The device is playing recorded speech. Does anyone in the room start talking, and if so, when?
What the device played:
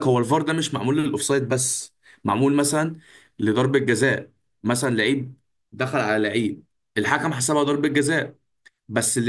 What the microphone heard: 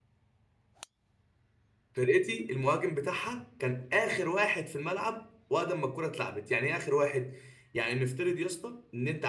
1.9 s

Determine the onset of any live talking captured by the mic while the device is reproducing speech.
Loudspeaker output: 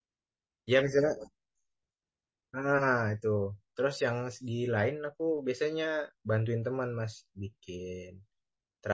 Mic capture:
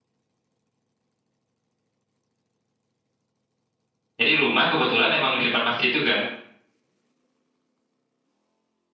4.2 s

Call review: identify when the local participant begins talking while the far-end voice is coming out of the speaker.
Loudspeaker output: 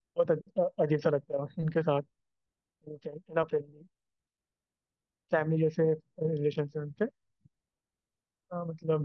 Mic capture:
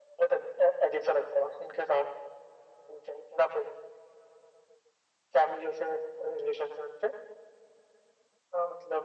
none

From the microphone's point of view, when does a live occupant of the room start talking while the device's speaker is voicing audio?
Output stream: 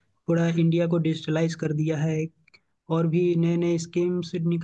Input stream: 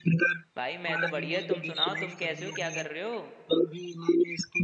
0.6 s

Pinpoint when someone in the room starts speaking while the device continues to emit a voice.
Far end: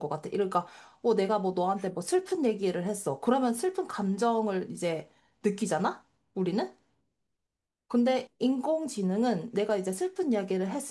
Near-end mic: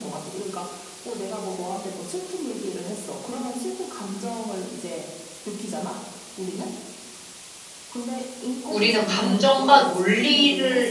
8.7 s

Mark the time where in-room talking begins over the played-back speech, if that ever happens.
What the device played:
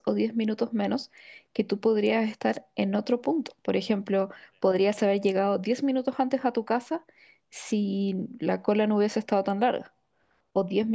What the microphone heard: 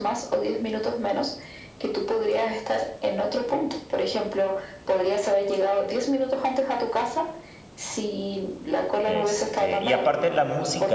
9.1 s

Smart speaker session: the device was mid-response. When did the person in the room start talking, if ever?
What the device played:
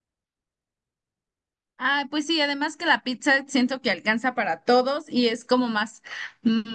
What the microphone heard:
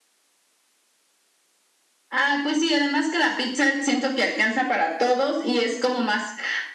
none

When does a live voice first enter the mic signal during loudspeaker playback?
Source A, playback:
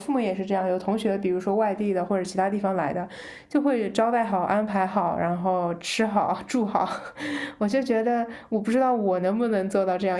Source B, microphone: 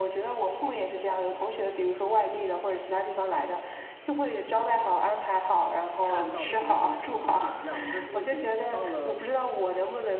6.0 s

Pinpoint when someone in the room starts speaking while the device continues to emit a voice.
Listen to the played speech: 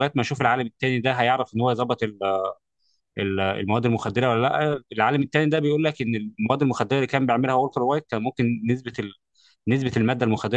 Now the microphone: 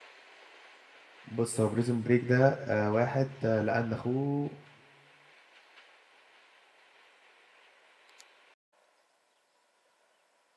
1.2 s

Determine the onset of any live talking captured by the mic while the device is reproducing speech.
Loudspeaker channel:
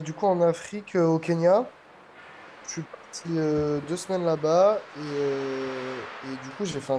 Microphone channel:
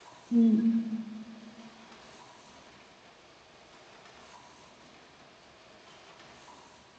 0.3 s

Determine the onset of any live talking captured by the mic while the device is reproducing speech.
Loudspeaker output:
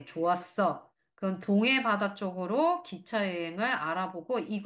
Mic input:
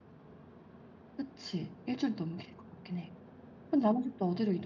1.1 s

